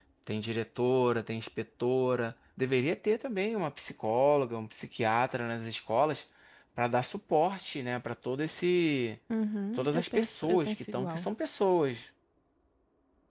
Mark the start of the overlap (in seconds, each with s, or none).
9.8 s